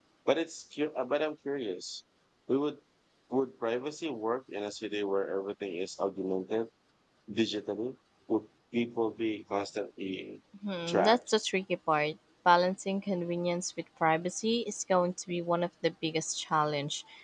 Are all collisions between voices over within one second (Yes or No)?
Yes